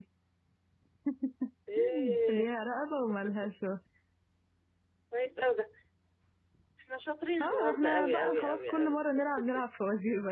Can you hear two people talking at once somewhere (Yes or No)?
Yes